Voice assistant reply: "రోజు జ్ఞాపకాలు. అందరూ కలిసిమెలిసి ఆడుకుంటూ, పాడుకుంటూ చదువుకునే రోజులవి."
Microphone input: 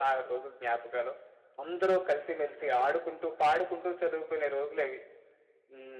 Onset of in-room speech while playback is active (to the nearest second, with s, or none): none